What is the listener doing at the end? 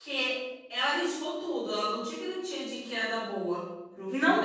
taking over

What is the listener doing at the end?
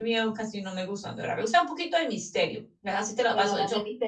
taking over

